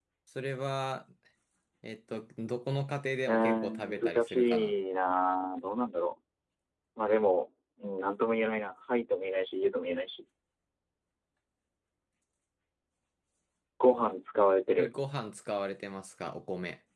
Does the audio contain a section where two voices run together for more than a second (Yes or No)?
Yes